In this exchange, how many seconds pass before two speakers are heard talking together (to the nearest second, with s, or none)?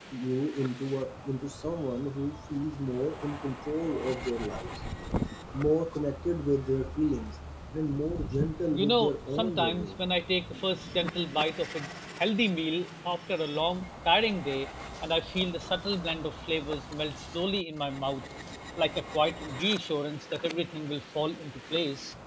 9 s